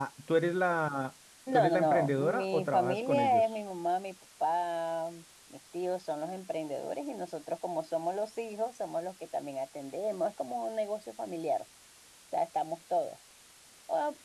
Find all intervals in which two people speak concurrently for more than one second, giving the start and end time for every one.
1.5-3.4

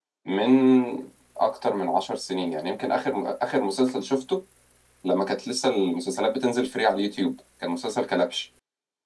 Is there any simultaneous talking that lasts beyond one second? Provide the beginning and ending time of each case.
none

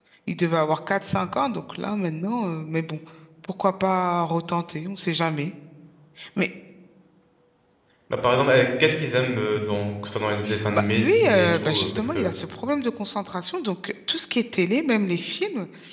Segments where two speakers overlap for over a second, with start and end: 10.7-12.3

